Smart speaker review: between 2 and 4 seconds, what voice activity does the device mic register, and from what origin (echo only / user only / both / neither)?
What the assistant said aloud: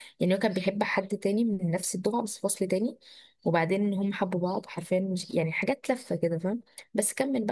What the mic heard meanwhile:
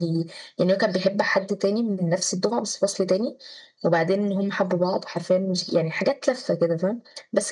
echo only